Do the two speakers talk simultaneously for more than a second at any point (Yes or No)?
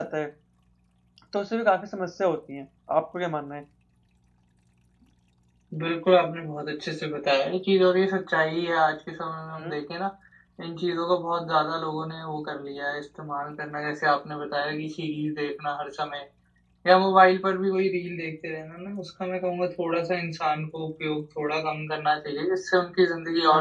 No